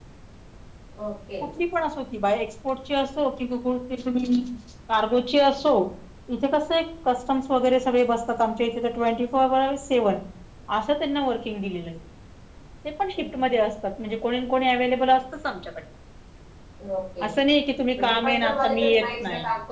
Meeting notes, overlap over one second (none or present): present